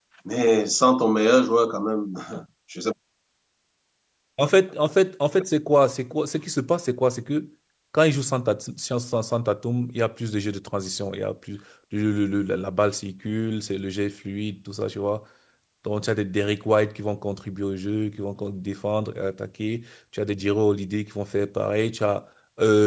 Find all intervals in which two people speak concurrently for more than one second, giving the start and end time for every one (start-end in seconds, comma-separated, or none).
none